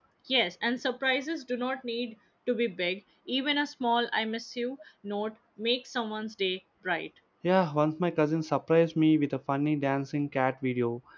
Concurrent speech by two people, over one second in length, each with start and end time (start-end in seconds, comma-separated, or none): none